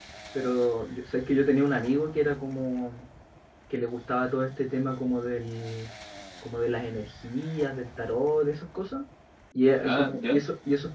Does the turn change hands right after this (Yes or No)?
No